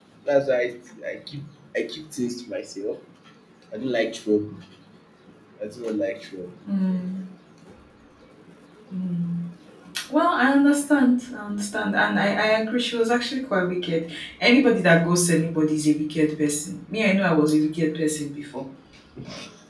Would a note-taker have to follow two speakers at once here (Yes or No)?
No